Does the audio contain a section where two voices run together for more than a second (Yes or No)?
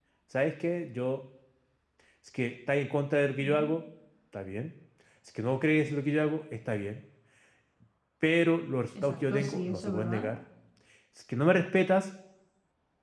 Yes